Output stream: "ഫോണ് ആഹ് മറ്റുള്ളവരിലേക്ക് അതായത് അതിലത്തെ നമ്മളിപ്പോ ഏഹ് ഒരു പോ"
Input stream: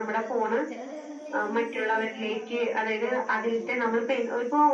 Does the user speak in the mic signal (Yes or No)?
Yes